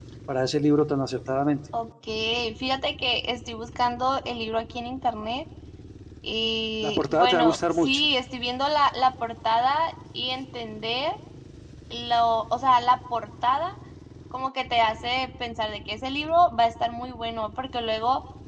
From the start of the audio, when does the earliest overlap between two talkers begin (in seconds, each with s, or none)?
6.8 s